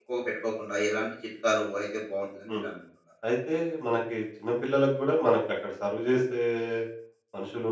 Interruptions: none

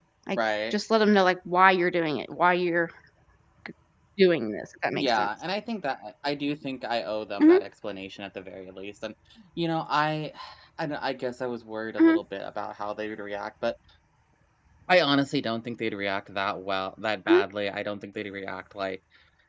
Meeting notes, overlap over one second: none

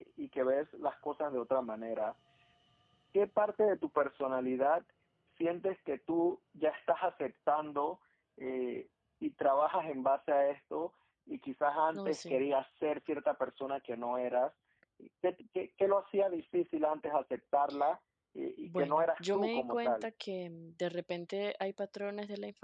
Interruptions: present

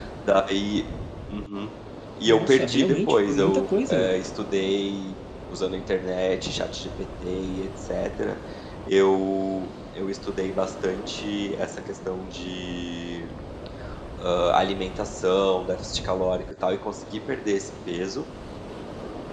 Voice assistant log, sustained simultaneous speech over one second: present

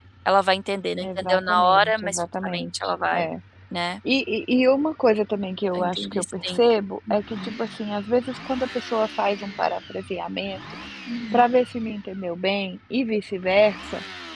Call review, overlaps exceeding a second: present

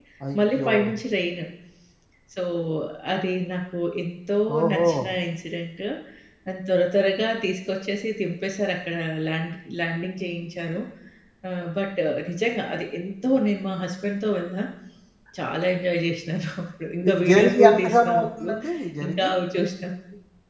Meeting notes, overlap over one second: present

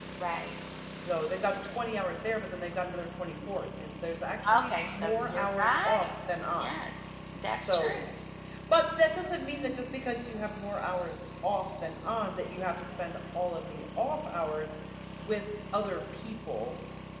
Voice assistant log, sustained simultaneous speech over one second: present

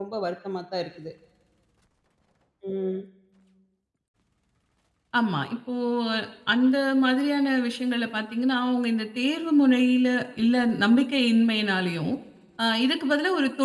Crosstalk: none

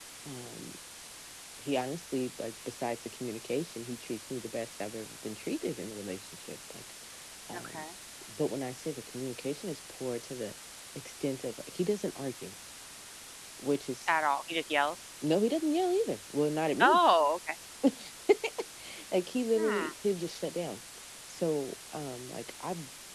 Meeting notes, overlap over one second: none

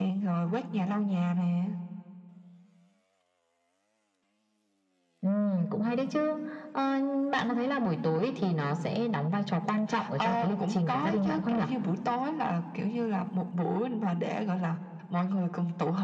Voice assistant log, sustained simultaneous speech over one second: present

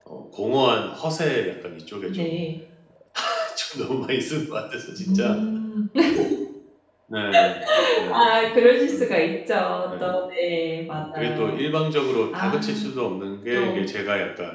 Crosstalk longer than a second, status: none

